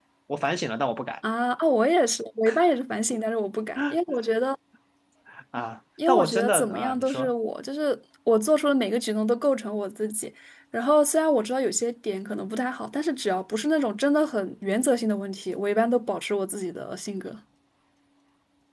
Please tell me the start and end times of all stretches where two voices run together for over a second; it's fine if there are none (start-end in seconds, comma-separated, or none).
6.1-7.3